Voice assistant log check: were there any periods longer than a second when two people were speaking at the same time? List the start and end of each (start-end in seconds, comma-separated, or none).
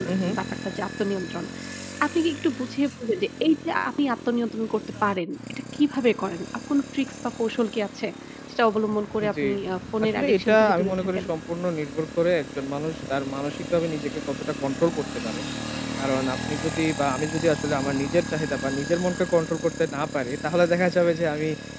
10.0-11.2